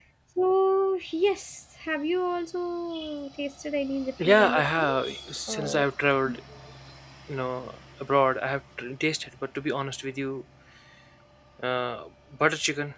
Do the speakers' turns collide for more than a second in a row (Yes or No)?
Yes